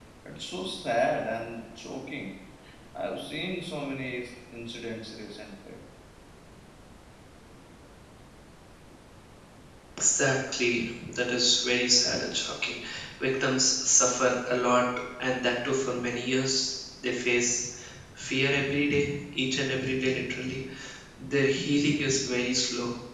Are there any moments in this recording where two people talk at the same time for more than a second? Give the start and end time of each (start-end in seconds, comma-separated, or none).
none